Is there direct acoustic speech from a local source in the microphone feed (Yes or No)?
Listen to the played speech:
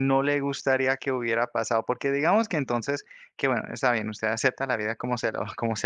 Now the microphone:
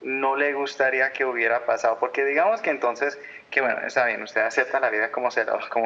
No